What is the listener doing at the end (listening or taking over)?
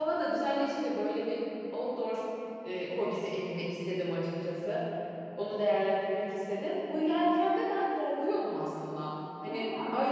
listening